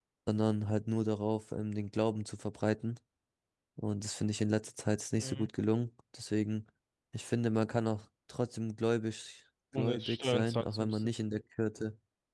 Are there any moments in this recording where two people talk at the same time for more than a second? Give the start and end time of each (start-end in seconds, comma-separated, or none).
9.8-11.1